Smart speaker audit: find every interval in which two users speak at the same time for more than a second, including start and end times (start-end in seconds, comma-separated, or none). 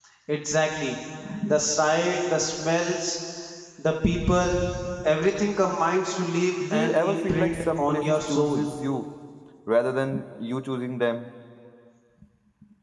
6.7-8.6